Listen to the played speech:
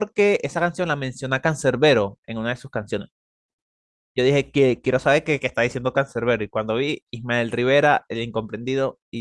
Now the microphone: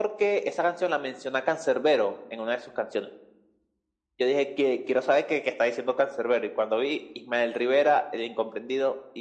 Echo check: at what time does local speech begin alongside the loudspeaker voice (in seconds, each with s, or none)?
none